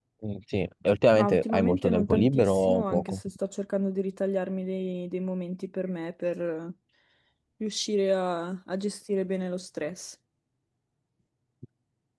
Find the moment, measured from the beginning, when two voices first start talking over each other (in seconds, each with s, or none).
1.1 s